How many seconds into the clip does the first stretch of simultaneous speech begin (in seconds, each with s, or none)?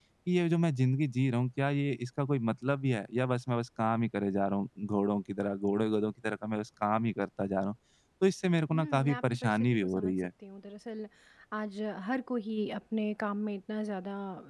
8.7 s